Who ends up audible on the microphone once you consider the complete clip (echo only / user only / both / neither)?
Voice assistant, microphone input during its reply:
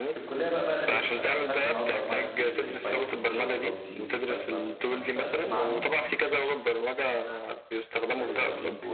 both